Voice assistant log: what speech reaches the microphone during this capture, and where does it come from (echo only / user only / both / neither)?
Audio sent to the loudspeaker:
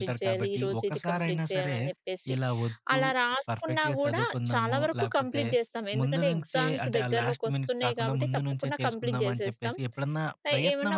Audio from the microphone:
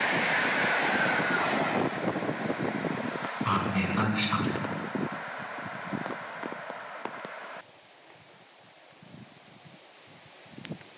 user only